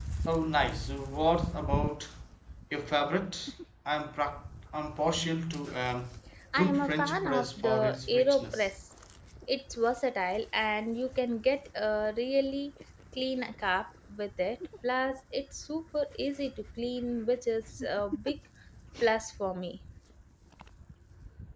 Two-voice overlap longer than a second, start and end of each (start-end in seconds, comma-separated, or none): 6.6-8.7